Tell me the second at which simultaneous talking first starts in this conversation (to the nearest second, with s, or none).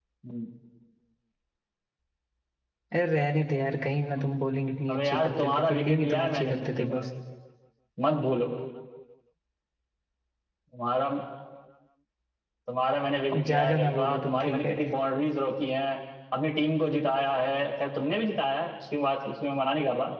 5 s